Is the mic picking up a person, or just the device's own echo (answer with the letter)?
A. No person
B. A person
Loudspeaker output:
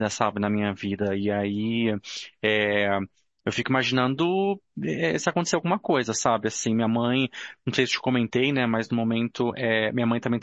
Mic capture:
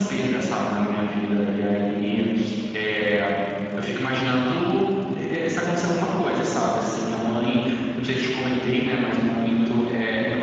A